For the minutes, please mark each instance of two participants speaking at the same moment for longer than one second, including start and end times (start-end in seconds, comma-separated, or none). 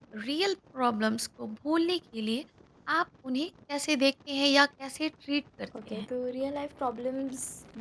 none